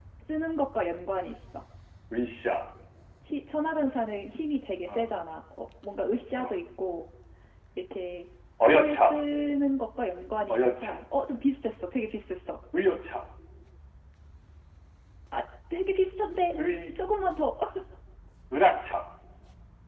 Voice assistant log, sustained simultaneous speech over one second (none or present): none